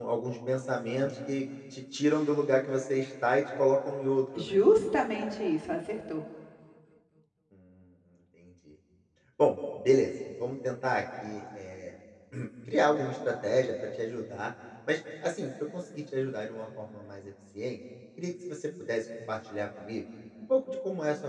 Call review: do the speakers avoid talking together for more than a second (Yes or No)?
Yes